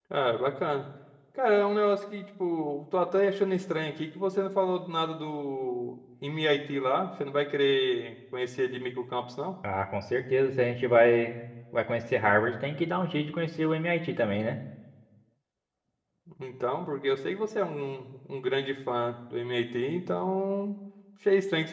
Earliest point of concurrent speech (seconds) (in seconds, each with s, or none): none